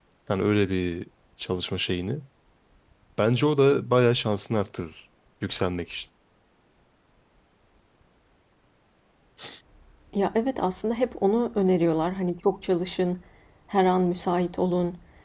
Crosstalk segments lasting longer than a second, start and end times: none

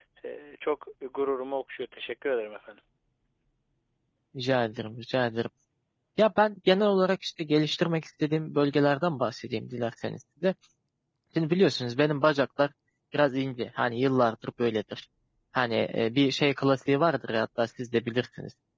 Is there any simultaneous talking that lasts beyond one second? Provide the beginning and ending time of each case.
none

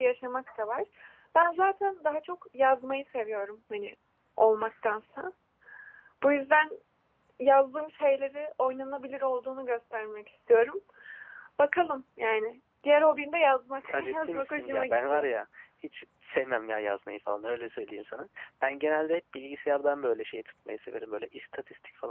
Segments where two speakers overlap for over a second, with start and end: 13.9-15.2

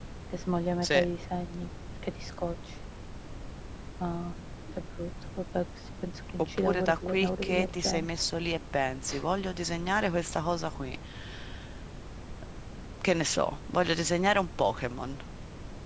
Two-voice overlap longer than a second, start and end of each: 6.6-8.1

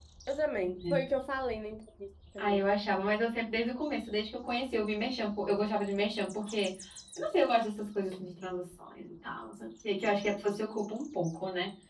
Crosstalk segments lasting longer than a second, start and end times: none

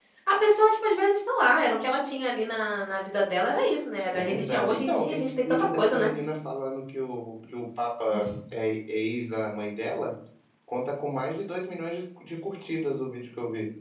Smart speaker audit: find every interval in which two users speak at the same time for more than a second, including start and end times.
4.1-6.1

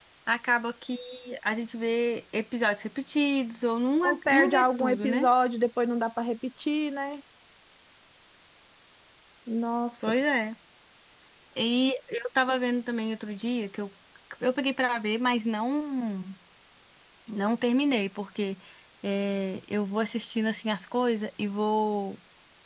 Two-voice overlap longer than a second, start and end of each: 4.0-5.3

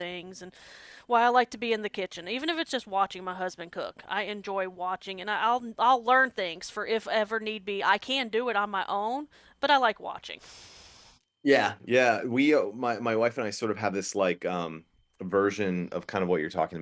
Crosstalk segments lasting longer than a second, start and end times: none

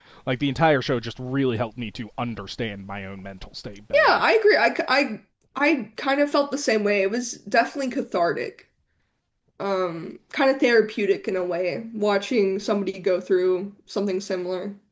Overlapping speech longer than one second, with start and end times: none

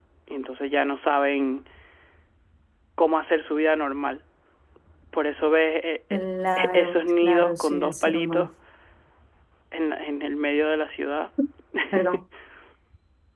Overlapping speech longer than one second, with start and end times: 6.7-8.5

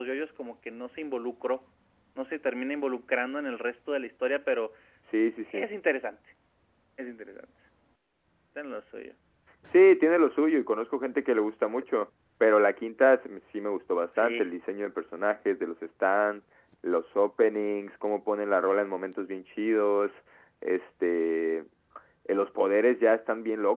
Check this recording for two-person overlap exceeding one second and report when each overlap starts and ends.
none

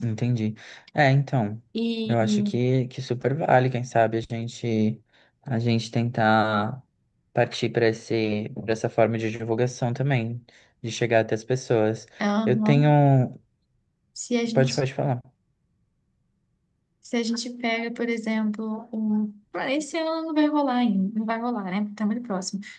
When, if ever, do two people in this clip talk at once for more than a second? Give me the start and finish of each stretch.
none

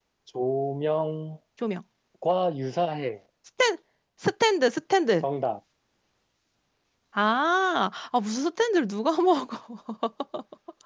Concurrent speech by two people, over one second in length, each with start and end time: none

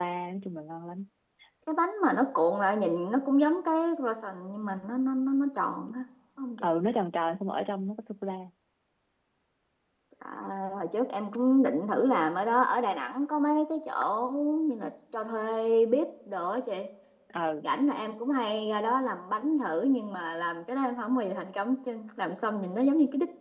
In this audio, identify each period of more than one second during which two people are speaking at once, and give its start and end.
none

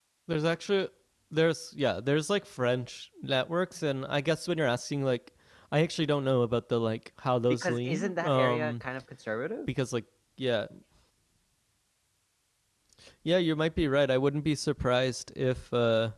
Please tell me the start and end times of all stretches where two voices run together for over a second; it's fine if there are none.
7.5-8.8

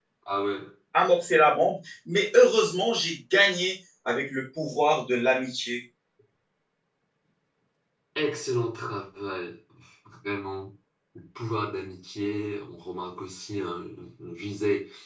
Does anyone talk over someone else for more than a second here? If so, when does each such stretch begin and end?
none

